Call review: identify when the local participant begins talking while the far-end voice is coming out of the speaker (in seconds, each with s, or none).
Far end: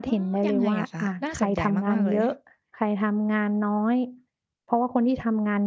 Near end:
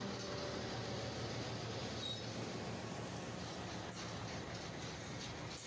none